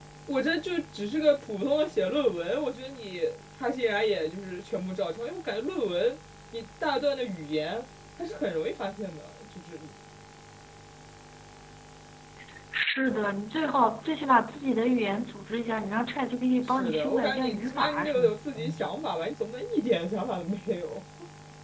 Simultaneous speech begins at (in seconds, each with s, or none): 16.7 s